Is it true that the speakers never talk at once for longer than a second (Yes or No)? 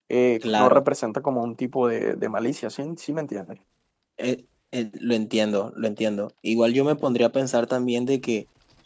Yes